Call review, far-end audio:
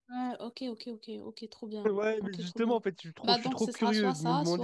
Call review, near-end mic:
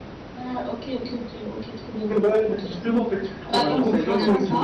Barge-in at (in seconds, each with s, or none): 3.6 s